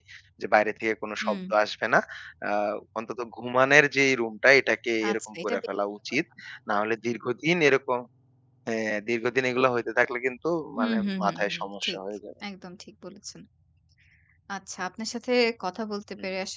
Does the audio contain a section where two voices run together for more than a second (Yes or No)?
Yes